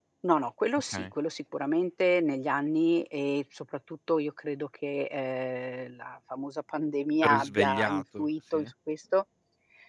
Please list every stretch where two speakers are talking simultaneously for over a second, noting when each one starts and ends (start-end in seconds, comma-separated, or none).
7.2-8.7